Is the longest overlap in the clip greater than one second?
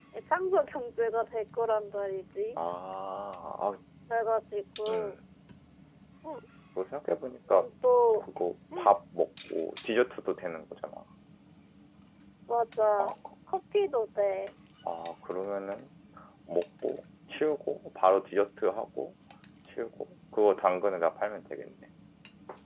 No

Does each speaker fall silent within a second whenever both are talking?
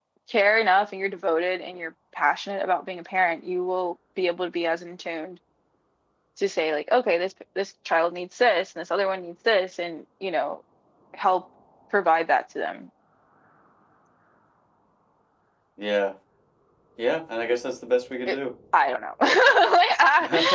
Yes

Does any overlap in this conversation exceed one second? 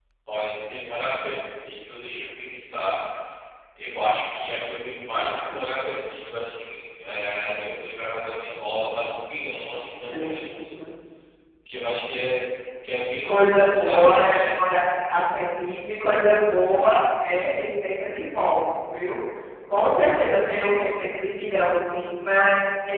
Yes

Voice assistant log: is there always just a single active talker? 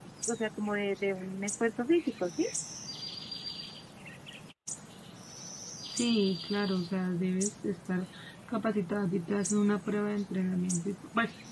Yes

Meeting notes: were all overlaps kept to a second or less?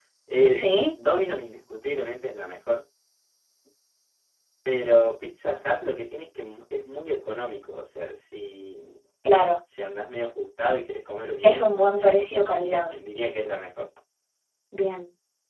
No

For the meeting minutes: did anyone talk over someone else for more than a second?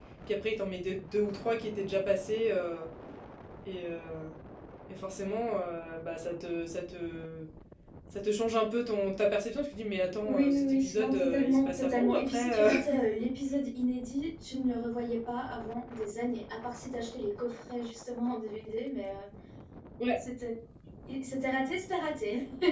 Yes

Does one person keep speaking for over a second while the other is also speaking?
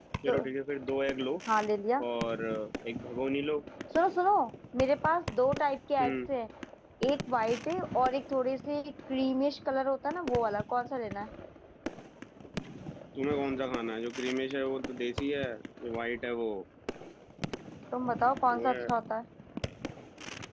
No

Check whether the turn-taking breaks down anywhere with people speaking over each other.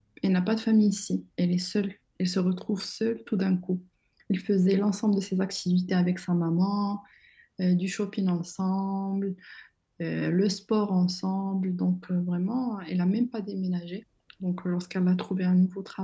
No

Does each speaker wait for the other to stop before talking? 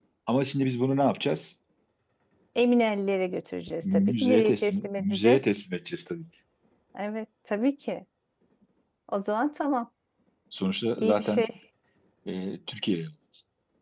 No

